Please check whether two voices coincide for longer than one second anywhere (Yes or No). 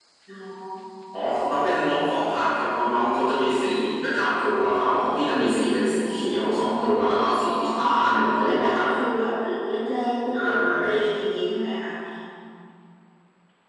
Yes